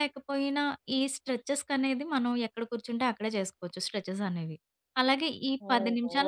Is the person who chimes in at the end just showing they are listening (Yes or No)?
Yes